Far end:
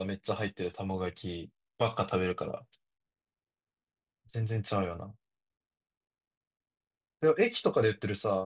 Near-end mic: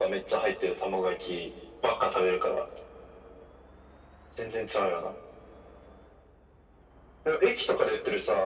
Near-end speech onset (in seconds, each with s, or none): none